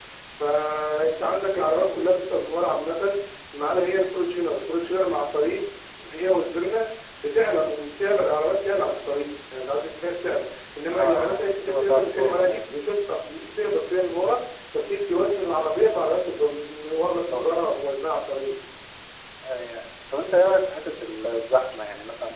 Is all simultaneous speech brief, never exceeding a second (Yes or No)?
No